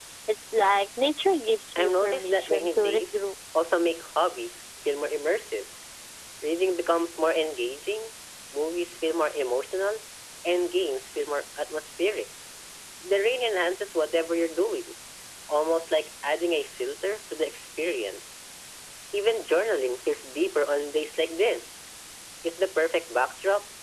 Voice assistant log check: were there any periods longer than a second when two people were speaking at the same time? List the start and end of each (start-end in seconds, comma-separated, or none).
1.8-3.0